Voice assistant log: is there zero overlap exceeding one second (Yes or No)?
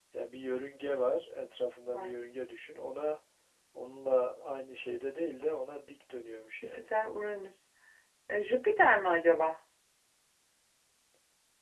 Yes